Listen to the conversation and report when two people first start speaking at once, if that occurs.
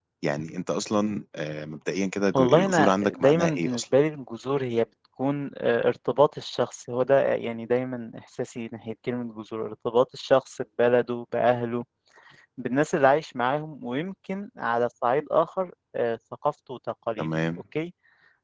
2 s

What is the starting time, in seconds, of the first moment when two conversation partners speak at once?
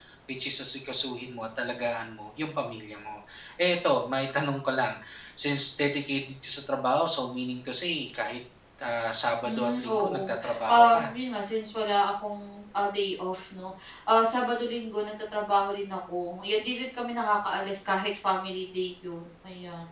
9 s

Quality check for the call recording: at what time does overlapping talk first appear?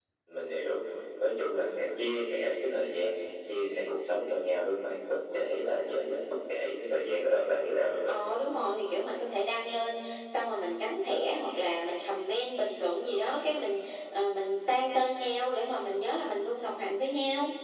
none

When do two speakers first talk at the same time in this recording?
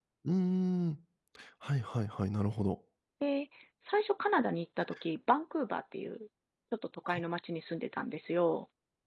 none

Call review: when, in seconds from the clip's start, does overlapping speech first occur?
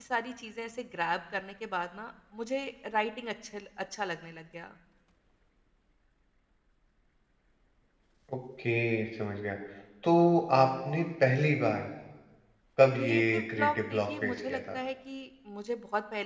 13 s

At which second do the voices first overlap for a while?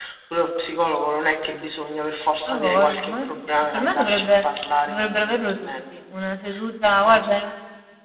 2 s

